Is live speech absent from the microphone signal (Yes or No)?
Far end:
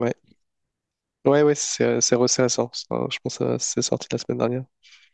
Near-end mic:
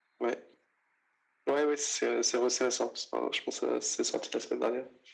Yes